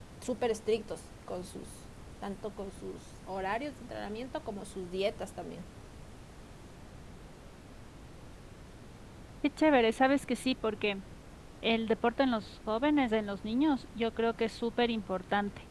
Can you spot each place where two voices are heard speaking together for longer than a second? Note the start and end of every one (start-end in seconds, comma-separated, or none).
none